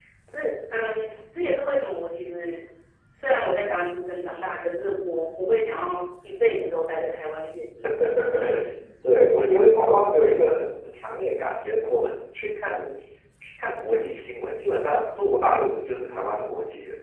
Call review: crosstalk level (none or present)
none